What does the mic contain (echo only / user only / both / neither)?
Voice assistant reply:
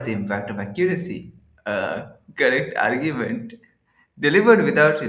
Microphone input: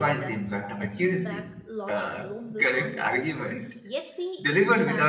both